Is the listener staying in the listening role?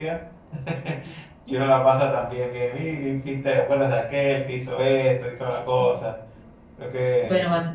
No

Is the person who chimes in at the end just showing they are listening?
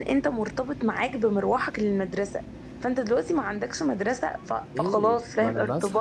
No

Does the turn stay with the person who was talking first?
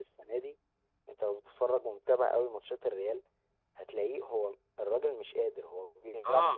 No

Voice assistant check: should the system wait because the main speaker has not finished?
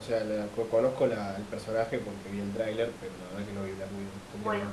No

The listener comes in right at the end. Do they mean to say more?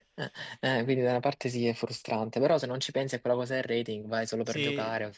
Yes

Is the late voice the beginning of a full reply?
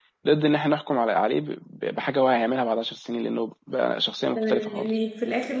Yes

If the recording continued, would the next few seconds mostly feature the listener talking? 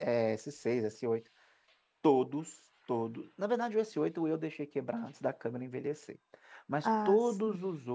No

